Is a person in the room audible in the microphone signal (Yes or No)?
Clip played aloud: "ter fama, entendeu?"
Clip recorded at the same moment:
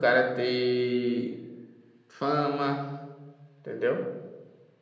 No